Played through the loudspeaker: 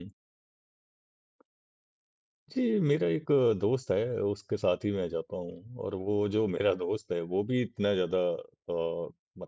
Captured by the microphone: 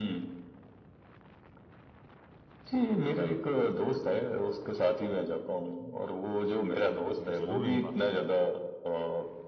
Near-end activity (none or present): present